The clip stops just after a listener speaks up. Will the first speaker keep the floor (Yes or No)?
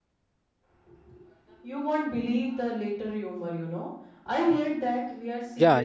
No